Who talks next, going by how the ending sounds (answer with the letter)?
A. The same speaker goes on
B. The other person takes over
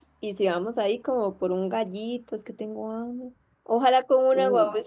A